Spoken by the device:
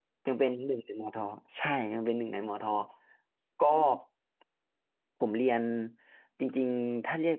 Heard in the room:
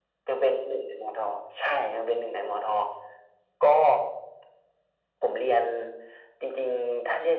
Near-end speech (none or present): none